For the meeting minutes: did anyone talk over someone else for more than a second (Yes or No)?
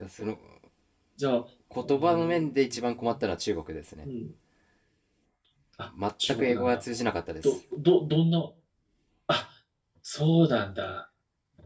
Yes